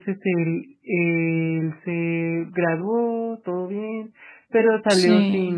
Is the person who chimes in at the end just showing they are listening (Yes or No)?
Yes